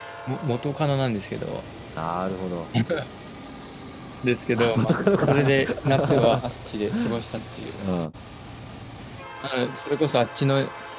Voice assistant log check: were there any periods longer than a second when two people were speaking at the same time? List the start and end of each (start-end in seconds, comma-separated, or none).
4.6-6.4